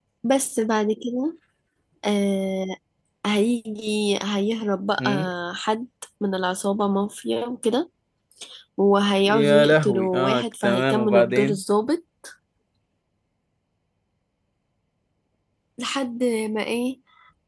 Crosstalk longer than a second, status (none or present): present